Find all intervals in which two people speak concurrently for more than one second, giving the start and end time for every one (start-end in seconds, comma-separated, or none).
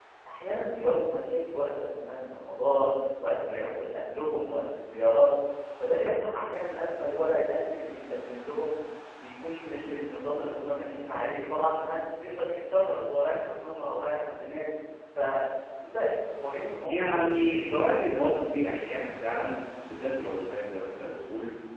16.8-18.7